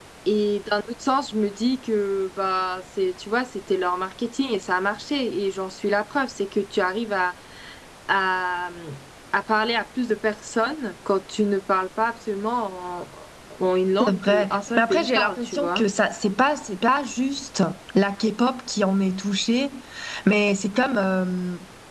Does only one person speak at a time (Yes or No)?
No